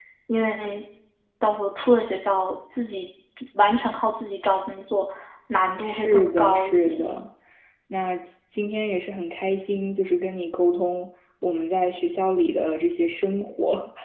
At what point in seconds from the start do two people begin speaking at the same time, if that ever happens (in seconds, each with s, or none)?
5.8 s